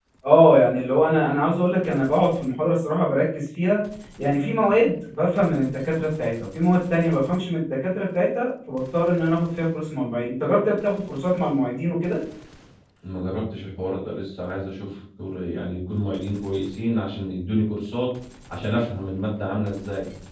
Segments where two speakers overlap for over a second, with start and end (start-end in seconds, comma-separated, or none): none